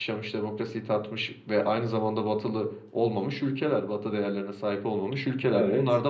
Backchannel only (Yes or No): Yes